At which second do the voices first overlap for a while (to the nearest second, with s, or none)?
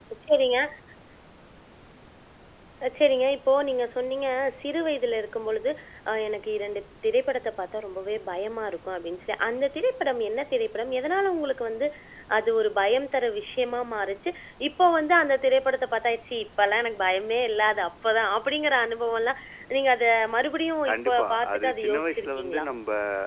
21 s